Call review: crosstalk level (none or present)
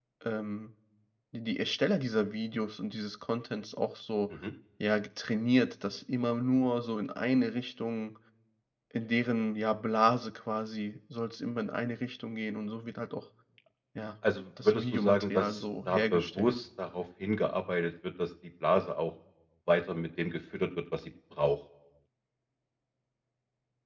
present